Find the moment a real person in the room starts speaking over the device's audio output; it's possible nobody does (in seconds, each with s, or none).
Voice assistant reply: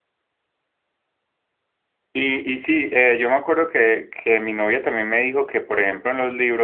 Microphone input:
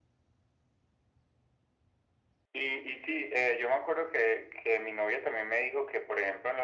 none